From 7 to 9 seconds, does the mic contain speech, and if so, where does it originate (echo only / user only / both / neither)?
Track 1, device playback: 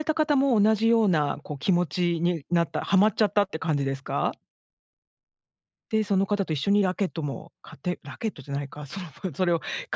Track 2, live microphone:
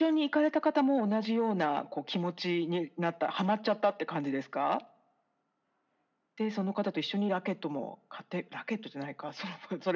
echo only